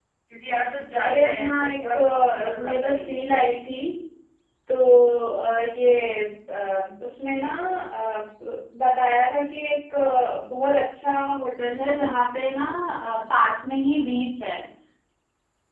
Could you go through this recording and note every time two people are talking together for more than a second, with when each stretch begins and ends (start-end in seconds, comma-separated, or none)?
1.0-3.2